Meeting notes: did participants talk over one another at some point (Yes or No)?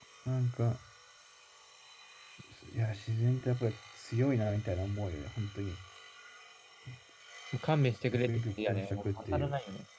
Yes